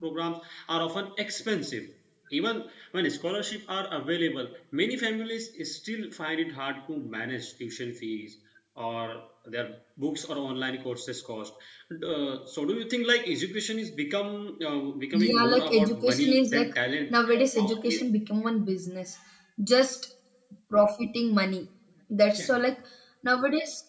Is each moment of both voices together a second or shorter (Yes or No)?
No